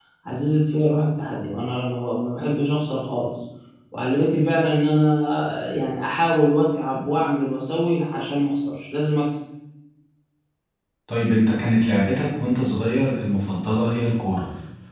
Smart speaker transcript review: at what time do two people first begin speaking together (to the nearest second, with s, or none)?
none